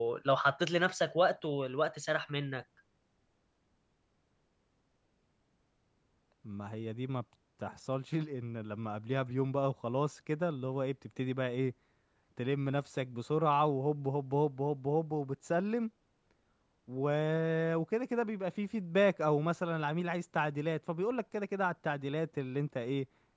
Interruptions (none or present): none